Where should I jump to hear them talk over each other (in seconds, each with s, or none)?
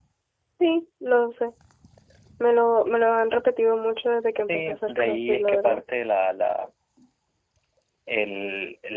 4.5 s